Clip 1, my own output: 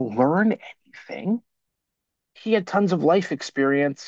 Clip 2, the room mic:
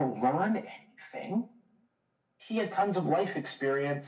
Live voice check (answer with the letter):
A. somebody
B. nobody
B